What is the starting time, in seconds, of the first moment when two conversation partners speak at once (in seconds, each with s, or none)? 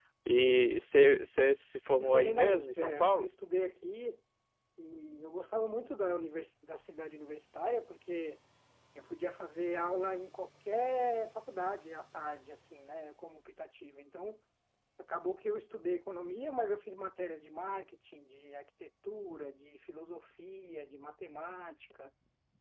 1.9 s